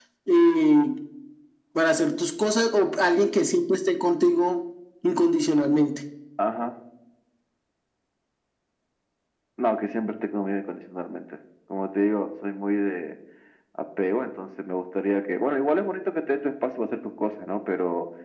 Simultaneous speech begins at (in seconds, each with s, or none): none